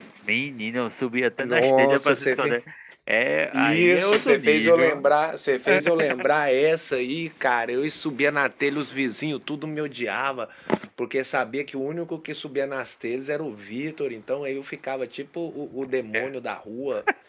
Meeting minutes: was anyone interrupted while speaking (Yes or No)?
Yes